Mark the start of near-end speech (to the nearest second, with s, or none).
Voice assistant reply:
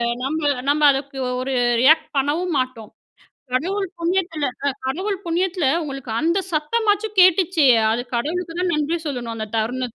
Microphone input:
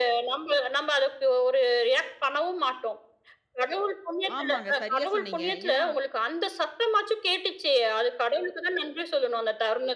4 s